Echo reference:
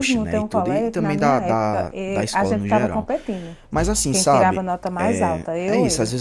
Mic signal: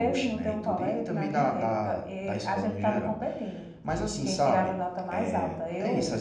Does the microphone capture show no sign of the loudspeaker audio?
No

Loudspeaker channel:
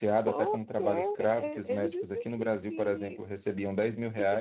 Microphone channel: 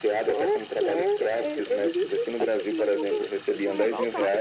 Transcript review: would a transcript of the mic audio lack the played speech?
No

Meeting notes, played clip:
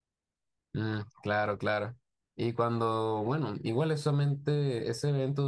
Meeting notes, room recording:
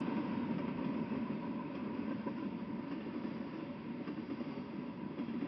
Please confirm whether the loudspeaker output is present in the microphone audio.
No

